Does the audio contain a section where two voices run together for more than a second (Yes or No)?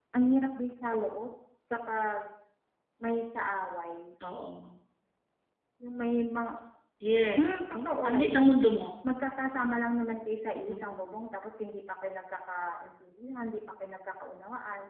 Yes